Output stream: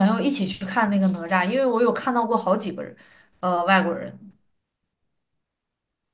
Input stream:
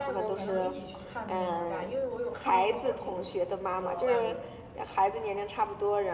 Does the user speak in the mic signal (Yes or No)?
Yes